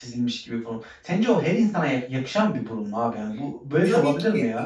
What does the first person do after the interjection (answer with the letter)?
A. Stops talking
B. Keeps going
A